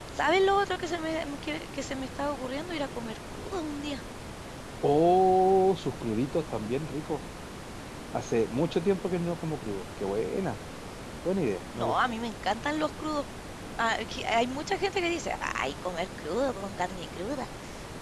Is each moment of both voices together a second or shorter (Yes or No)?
Yes